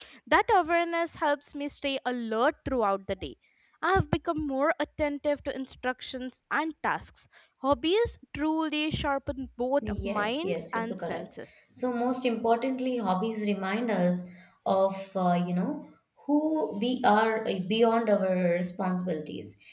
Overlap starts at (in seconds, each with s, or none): 9.8 s